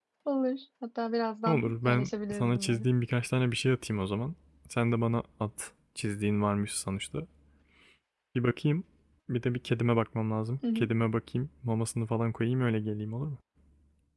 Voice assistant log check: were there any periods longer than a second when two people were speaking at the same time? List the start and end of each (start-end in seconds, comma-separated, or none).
1.5-2.9